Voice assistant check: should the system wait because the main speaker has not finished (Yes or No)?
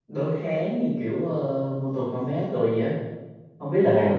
No